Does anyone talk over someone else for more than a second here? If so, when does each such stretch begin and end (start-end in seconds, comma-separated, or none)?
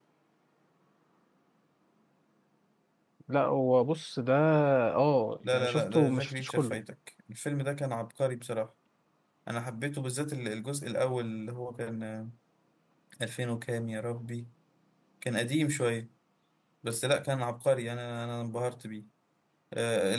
5.5-6.8